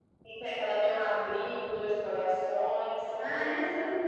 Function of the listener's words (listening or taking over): taking over